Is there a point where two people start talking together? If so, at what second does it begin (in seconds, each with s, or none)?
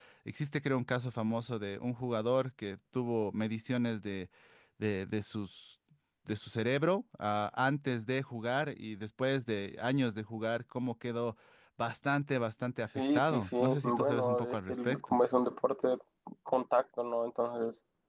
13.0 s